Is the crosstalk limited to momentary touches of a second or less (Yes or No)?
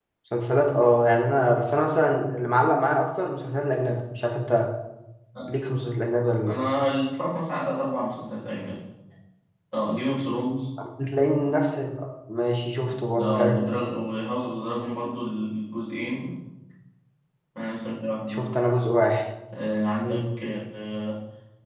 Yes